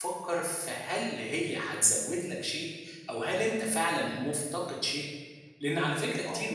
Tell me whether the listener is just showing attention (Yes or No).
Yes